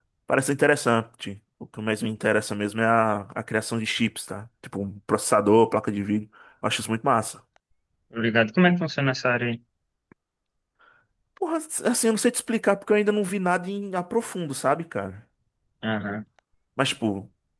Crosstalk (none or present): none